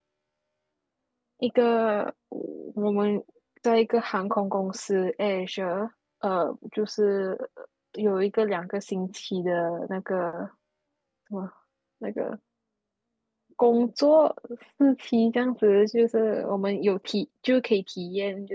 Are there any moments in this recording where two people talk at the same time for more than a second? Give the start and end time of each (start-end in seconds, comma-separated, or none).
none